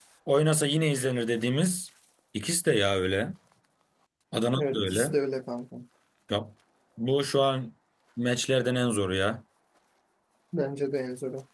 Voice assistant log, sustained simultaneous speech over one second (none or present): none